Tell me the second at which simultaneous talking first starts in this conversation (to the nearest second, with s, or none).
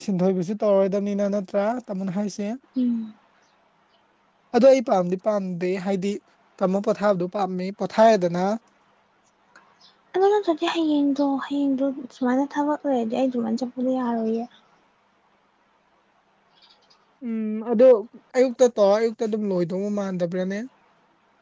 none